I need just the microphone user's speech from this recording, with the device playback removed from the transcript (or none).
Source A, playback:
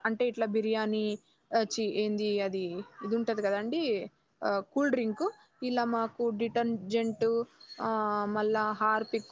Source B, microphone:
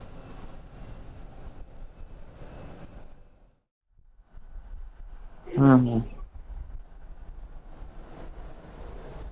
హ్మ్ హ్మ్